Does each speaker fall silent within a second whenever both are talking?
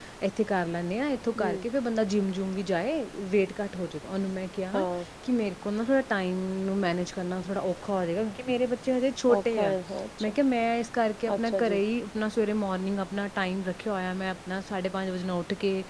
Yes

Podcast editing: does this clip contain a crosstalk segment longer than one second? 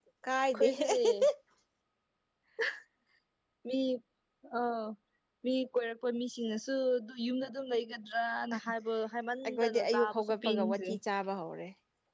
Yes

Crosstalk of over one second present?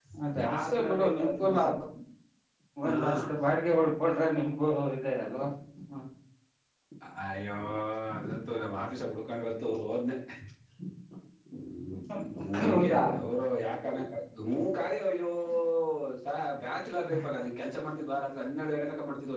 Yes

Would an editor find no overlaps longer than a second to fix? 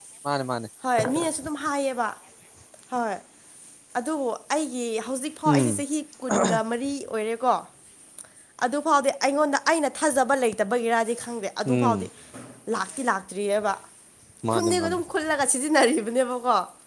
Yes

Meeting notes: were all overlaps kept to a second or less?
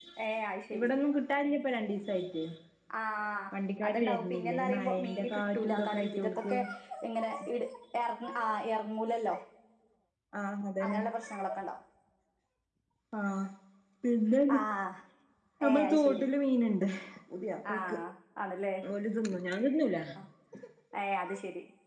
No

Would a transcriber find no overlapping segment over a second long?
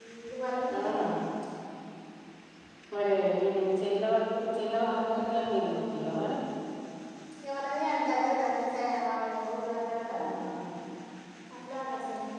No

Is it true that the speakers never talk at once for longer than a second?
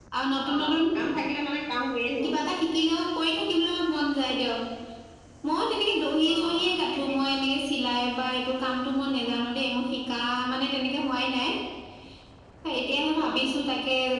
Yes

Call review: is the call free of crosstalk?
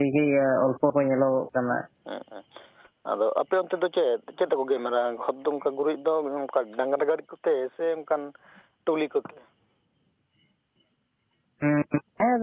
Yes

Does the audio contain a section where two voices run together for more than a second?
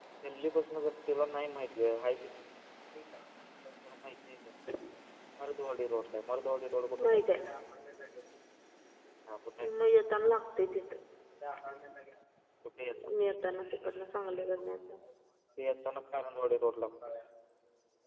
No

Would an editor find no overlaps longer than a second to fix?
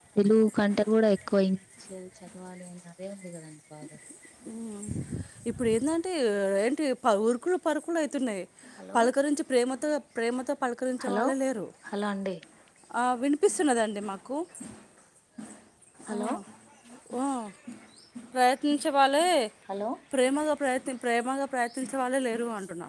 Yes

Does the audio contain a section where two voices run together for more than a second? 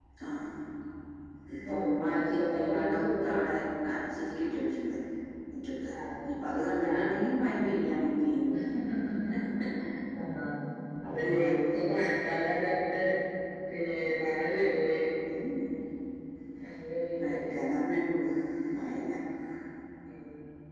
Yes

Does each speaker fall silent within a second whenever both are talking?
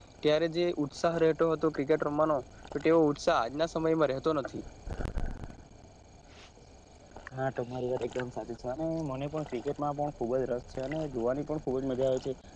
Yes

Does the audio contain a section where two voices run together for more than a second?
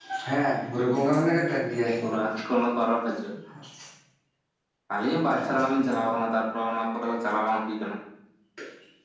No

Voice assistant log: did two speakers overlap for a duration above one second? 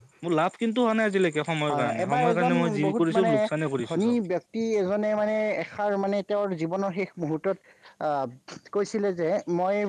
Yes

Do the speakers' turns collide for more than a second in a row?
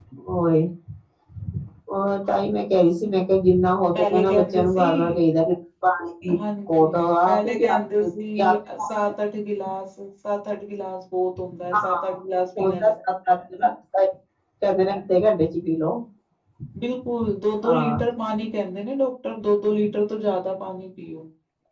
Yes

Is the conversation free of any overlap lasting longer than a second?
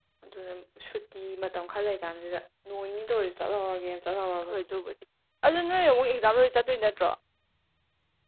Yes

